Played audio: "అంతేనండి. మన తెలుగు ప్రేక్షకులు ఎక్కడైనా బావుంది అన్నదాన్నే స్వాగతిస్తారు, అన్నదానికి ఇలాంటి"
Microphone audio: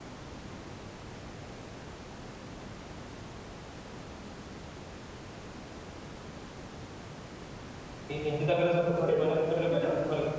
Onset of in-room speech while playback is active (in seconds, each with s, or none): 8.1 s